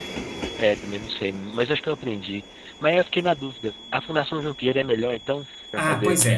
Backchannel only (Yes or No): No